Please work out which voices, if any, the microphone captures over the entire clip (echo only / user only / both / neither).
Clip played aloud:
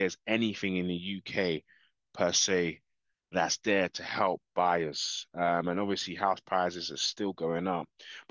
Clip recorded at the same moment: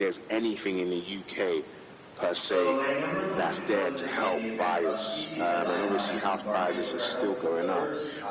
both